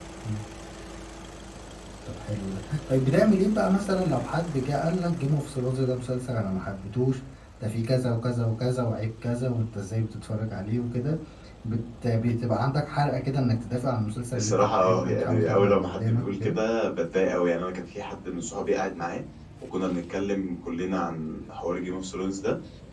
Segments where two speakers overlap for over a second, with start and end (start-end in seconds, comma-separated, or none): 14.4-16.6